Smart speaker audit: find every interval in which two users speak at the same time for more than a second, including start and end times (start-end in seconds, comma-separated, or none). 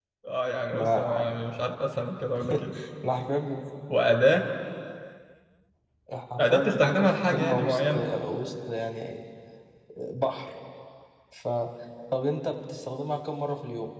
6.4-8.0